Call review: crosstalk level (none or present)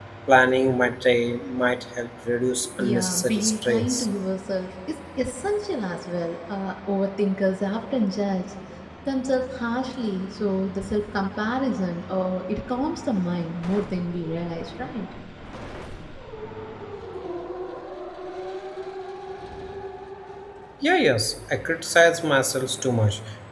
present